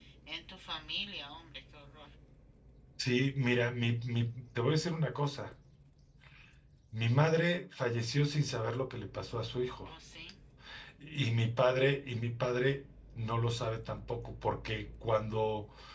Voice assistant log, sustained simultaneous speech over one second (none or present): none